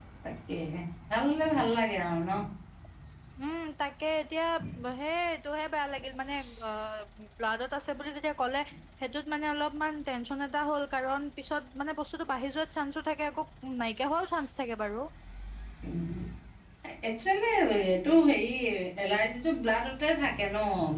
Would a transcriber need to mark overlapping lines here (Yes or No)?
No